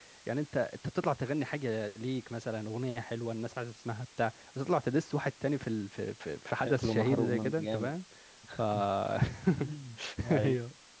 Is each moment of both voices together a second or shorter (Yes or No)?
No